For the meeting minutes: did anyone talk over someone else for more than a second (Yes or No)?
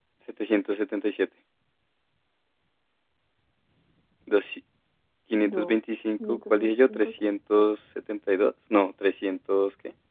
Yes